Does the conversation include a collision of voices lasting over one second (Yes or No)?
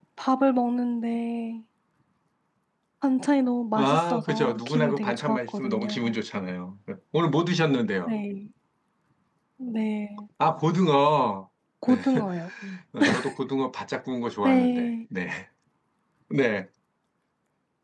Yes